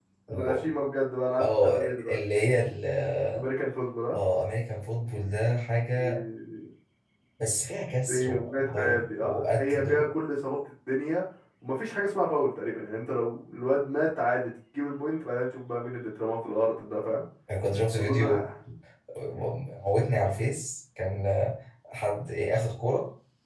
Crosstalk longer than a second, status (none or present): present